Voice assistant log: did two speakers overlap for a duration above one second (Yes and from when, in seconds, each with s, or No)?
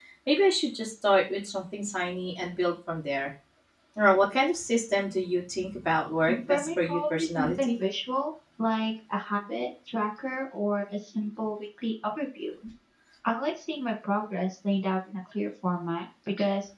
Yes, from 6.2 s